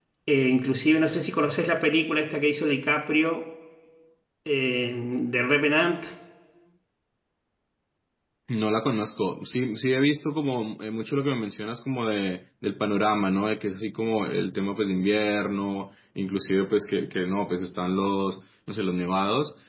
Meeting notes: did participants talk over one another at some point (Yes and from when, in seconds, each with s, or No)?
No